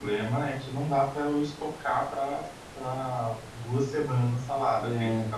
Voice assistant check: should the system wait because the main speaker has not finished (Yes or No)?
Yes